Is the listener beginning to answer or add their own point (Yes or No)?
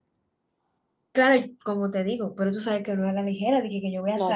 Yes